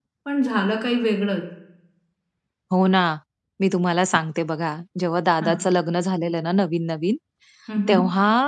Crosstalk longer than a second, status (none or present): none